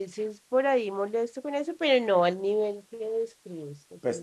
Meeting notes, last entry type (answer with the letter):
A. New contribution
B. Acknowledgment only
A